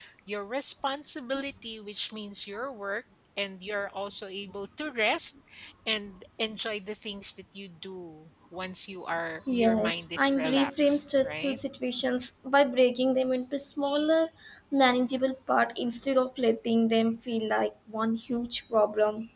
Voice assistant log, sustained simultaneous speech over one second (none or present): present